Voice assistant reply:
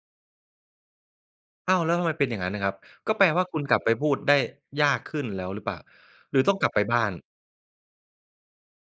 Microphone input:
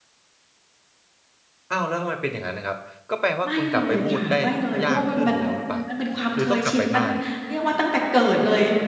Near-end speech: present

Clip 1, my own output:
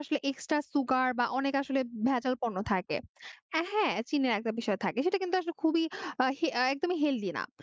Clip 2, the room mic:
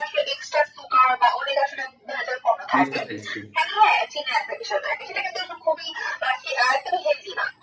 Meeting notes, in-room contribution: present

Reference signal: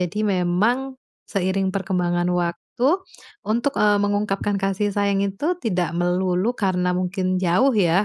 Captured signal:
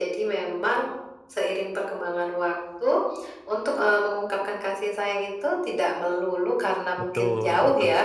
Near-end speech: present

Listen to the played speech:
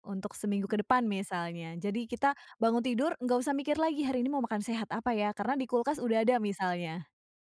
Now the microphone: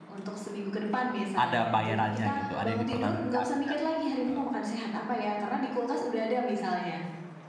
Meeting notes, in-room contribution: present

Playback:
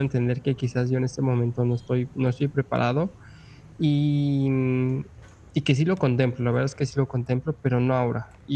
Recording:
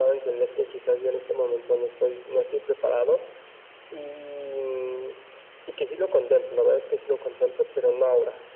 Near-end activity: none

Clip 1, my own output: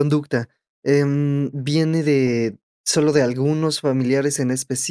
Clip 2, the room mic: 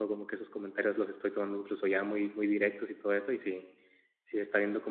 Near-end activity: present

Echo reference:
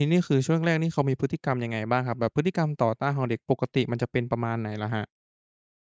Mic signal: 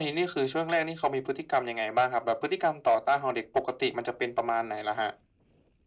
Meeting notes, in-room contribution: none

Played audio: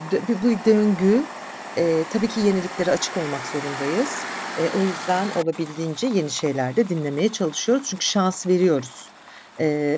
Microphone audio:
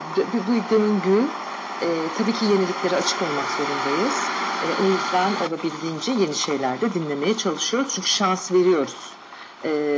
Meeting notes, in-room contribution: none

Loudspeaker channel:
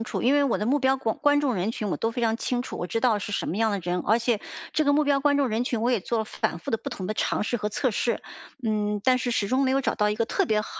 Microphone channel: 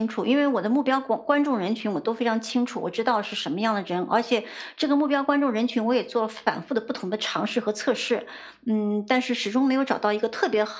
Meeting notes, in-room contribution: none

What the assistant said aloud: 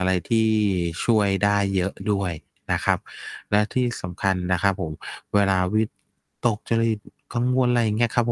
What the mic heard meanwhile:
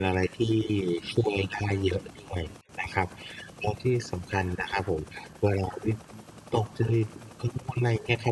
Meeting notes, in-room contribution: none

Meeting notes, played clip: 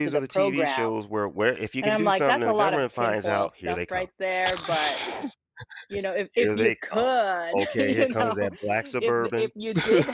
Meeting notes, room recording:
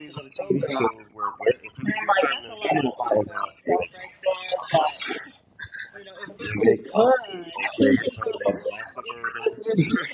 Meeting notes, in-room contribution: none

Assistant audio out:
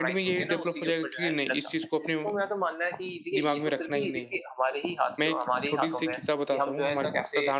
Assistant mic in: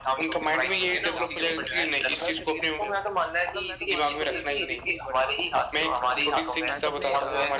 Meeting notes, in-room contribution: present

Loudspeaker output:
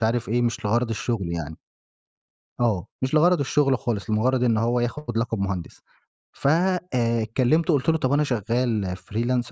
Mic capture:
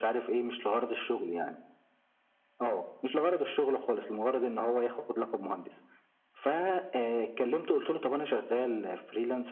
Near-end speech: none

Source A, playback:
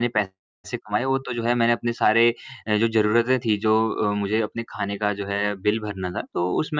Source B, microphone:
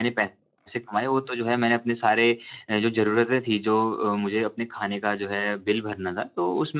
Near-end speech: none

